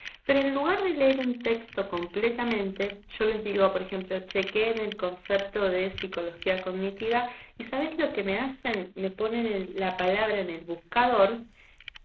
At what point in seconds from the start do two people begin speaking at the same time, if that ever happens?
none

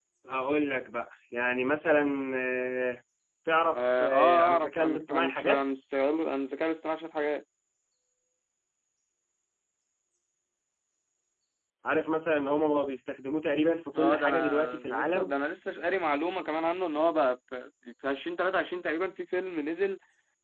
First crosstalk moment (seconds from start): 3.8 s

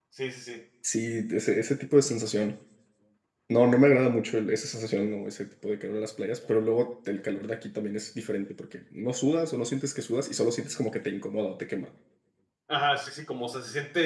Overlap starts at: none

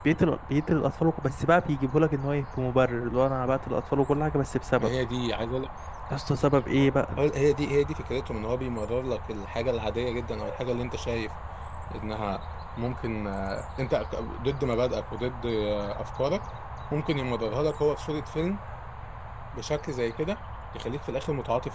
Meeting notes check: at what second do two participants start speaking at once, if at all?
none

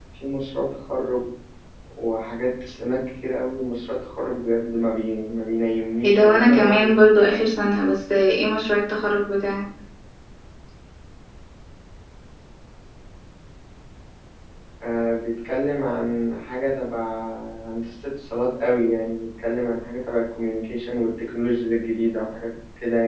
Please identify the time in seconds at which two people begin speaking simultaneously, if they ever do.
6.0 s

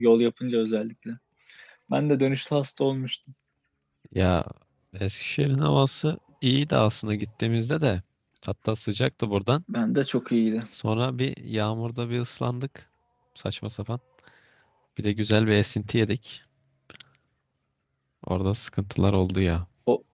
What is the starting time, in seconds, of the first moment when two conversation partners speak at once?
none

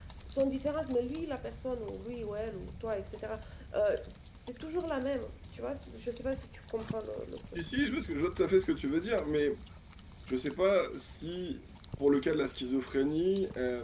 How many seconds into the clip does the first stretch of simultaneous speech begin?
none

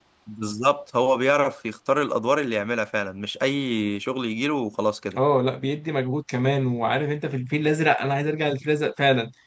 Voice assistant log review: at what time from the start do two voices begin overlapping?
none

